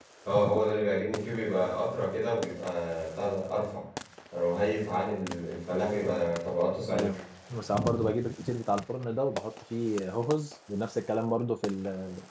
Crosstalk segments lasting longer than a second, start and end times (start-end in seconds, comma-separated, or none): none